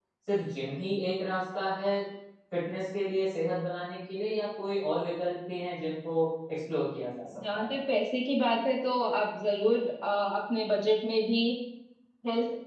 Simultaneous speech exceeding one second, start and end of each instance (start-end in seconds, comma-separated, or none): none